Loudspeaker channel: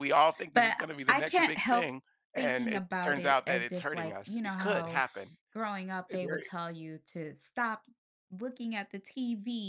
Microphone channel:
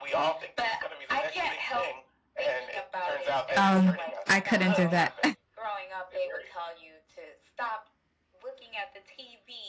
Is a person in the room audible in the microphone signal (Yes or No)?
Yes